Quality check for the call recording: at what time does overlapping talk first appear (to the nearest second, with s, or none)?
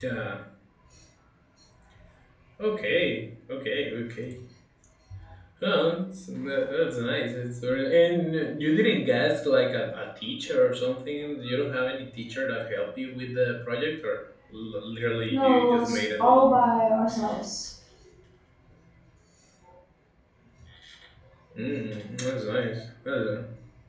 15 s